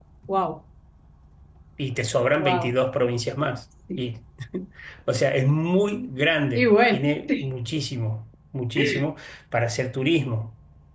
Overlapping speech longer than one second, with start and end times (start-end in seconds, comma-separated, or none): none